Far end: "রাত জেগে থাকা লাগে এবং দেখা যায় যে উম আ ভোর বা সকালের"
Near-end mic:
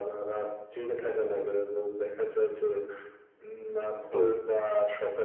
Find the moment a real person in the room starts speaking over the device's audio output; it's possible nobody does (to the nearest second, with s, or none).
4 s